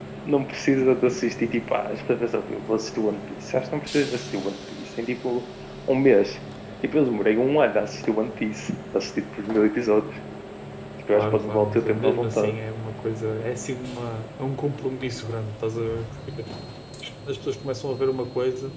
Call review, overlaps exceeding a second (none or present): present